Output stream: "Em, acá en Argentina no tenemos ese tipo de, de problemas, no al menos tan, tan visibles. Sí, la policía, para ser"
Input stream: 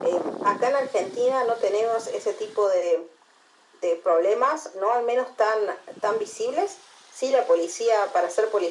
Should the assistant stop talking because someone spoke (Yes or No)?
No